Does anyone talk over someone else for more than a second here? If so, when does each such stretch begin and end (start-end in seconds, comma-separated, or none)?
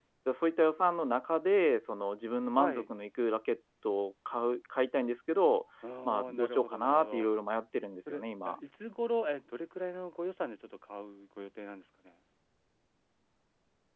6.0-7.3